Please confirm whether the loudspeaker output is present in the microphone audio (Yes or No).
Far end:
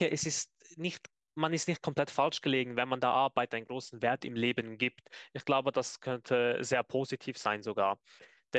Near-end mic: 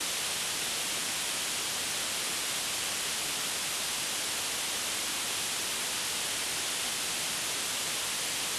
No